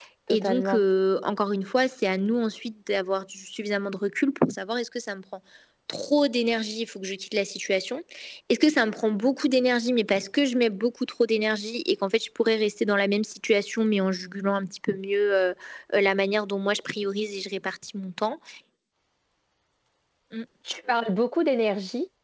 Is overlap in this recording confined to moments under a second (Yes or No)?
Yes